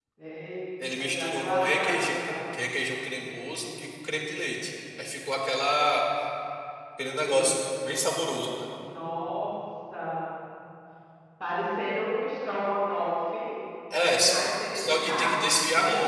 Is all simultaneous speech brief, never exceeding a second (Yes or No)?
No